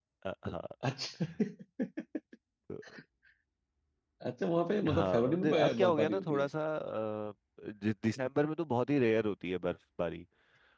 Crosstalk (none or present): present